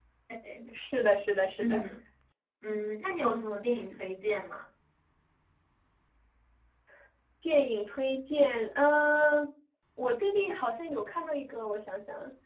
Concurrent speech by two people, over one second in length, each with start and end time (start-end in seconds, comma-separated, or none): none